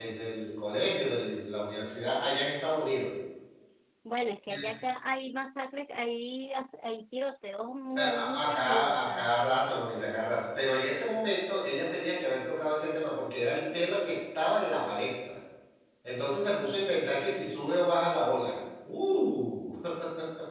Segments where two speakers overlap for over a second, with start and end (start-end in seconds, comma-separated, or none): 8.0-9.3